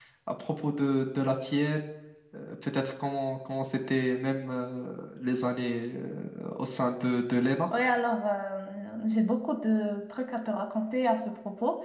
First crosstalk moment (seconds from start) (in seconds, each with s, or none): none